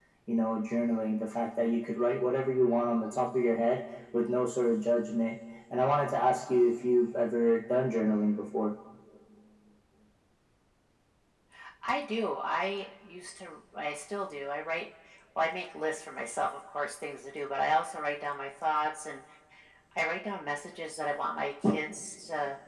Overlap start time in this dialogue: none

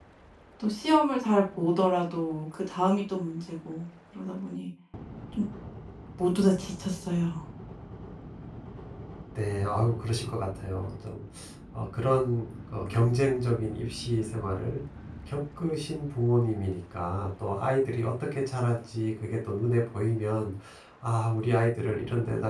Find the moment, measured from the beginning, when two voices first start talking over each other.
none

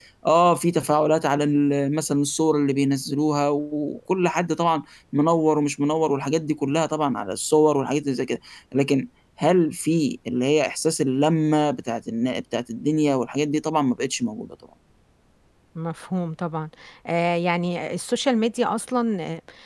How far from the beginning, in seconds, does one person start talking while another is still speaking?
none

